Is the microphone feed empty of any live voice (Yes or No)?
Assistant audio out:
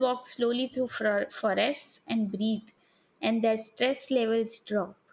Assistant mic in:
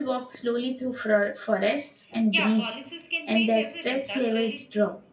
No